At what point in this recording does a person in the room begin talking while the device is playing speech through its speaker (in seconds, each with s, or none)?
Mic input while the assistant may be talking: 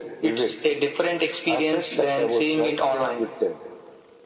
none